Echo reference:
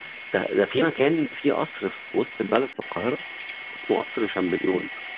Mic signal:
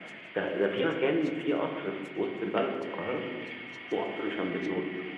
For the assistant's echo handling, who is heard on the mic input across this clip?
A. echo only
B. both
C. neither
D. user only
A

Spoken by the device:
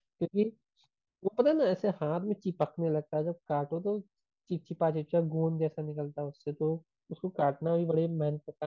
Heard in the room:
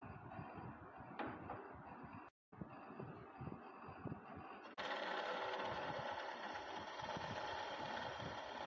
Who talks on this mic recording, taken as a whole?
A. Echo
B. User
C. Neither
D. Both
C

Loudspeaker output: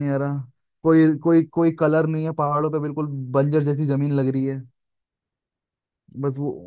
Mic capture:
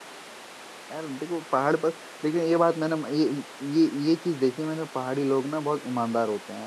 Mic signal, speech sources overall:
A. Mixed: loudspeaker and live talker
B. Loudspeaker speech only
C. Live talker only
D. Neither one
C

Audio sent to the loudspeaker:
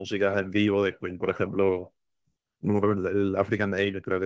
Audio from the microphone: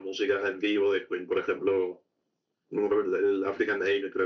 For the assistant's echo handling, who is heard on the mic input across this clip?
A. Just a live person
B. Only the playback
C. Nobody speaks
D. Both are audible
B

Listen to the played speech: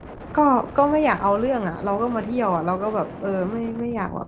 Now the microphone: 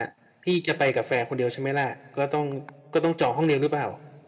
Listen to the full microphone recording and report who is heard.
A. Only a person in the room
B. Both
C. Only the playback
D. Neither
A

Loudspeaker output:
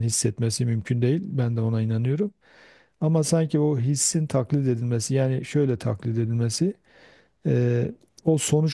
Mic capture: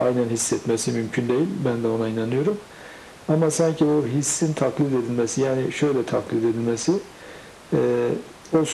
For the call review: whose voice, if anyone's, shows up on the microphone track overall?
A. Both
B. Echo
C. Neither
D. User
B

